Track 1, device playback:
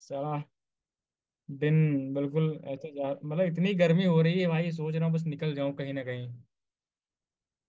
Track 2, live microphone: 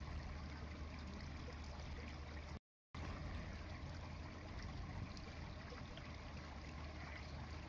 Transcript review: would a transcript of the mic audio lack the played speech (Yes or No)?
Yes